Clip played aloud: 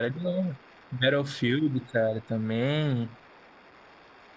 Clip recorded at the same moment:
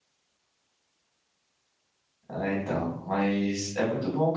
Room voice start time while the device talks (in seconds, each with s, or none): 2.3 s